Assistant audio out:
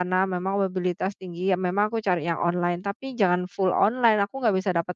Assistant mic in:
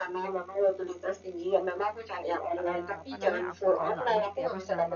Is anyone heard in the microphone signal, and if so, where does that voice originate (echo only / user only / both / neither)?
both